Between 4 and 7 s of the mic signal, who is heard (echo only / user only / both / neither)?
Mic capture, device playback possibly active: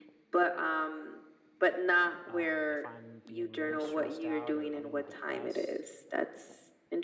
both